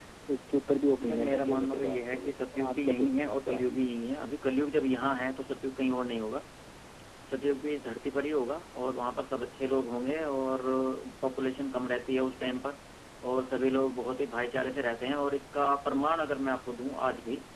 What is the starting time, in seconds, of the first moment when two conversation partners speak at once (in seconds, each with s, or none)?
1.1 s